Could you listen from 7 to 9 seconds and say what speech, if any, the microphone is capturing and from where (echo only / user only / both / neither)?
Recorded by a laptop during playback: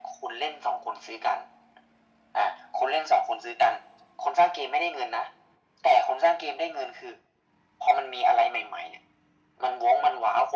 echo only